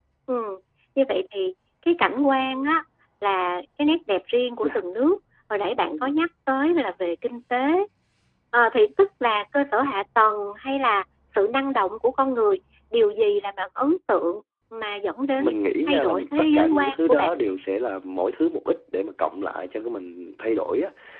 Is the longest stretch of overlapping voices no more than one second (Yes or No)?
No